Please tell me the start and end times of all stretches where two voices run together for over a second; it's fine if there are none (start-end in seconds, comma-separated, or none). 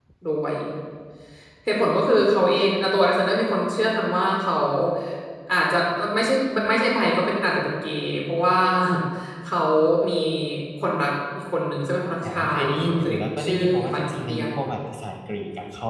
12.3-14.5